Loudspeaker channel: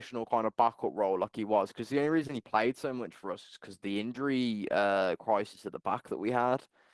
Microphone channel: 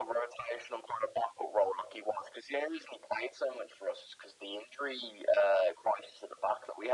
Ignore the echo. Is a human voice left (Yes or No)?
No